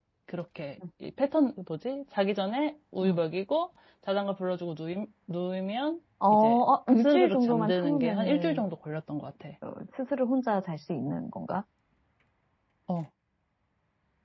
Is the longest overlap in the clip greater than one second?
Yes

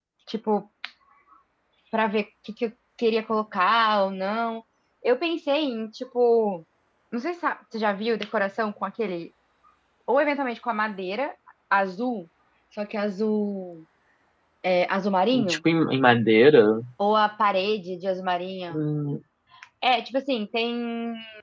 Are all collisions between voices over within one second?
Yes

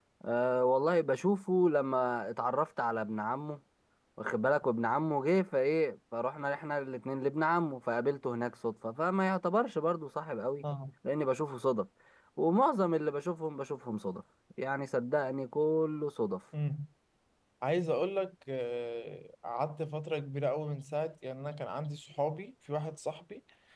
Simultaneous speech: No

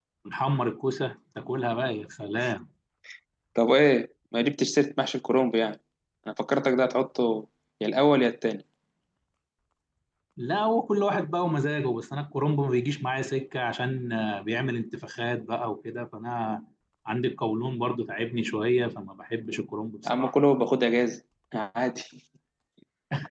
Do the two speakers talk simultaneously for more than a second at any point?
No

